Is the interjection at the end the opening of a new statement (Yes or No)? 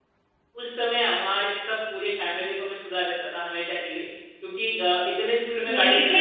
Yes